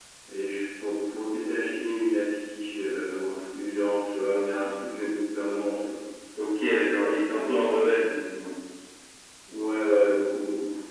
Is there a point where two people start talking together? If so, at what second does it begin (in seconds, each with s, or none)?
none